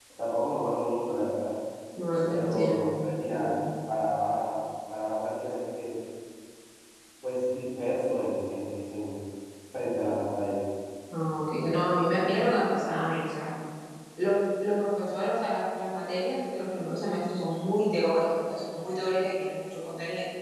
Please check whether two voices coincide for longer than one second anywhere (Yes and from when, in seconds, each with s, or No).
Yes, from 2.3 s